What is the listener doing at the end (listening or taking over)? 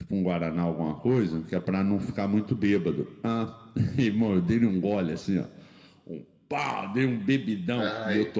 listening